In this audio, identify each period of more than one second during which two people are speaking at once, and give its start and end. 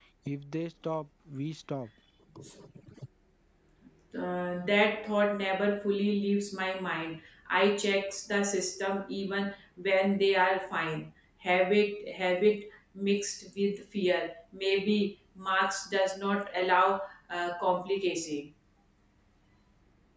none

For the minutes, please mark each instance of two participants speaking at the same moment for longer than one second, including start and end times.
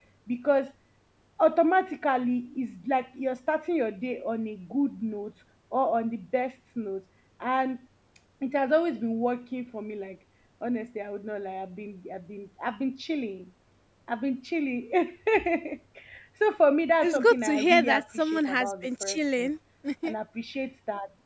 17.0-19.5

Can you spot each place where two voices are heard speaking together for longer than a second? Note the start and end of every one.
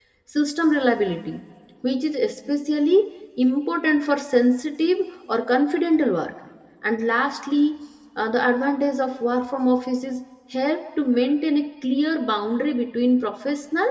none

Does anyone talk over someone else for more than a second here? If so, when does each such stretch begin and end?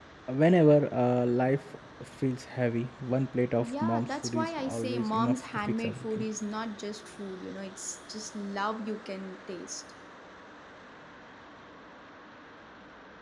3.6-6.2

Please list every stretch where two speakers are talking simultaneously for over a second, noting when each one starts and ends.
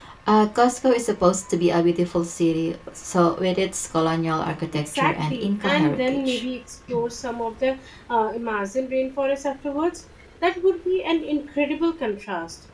4.7-6.4

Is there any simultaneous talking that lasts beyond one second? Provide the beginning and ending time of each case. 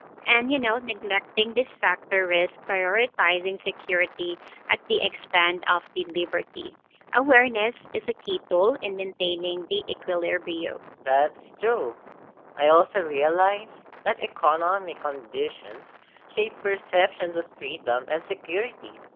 none

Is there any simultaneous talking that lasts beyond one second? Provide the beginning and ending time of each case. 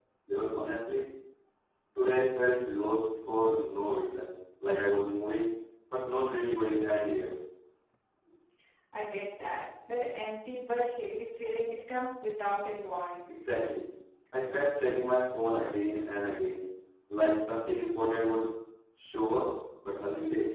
none

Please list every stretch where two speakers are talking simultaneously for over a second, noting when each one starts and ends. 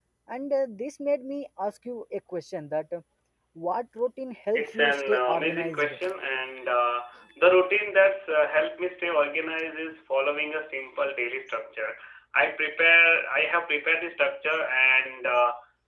4.5-5.9

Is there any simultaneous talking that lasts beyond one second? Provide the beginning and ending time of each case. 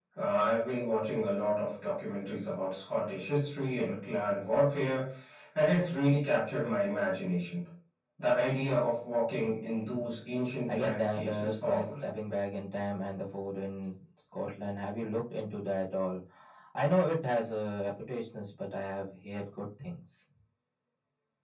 10.7-11.9

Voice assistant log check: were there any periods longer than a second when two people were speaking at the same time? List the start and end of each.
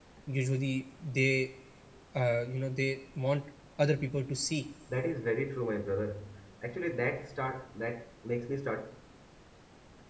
none

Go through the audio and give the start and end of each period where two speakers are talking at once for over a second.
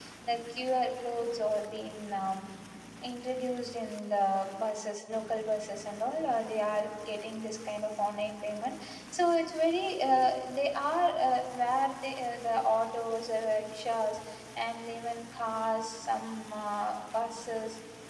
none

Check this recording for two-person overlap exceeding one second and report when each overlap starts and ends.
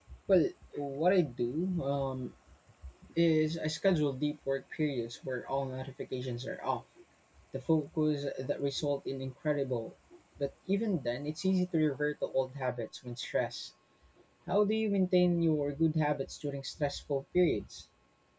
none

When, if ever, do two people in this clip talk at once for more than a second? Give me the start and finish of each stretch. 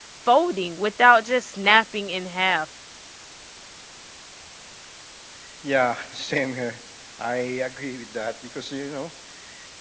none

